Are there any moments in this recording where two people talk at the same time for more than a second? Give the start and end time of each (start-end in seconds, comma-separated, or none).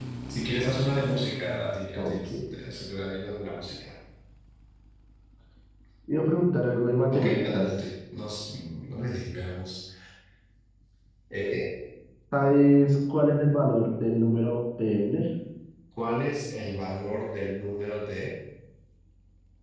none